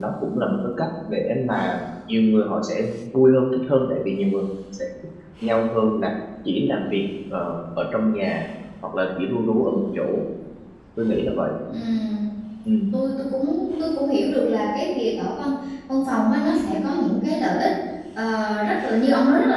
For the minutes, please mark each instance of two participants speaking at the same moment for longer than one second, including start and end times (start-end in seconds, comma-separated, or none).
none